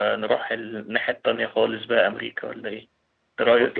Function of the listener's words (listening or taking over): taking over